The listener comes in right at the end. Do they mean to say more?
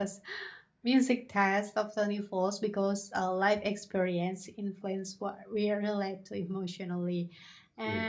No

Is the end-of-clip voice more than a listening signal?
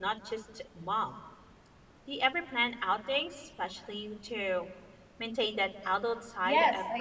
Yes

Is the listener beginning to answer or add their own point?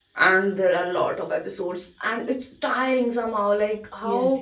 Yes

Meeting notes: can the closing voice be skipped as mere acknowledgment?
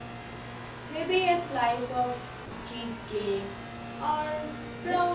No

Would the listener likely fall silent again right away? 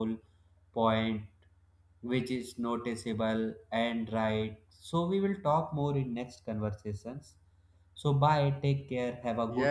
No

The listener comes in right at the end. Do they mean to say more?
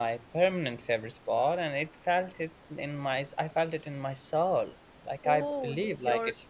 No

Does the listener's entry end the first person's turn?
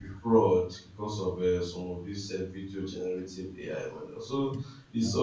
No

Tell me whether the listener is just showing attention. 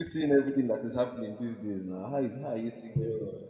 No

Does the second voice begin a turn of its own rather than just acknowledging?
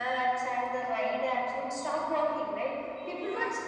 No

